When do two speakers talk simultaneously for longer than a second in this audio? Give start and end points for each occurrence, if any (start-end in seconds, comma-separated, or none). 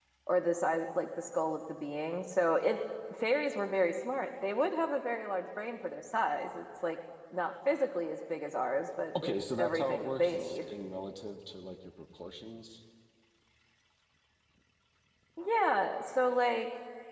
9.2-10.7